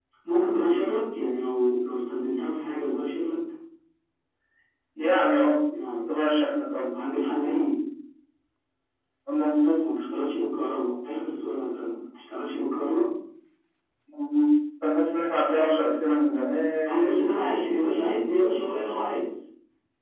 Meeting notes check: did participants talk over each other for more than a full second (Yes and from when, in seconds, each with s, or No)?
No